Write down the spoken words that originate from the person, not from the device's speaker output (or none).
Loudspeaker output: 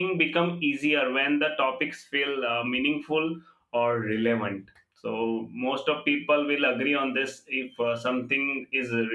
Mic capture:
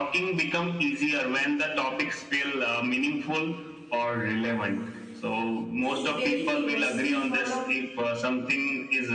She's very famous. She's one of